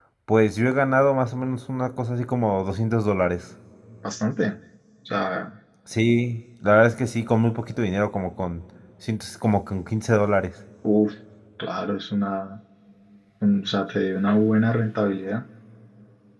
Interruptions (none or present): none